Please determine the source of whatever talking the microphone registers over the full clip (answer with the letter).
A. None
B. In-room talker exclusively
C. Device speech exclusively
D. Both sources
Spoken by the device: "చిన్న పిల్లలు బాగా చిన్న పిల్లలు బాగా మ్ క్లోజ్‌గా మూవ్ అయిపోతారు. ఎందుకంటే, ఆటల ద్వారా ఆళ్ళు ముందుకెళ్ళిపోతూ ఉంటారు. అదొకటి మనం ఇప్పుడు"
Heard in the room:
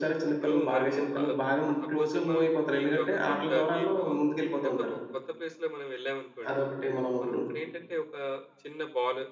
D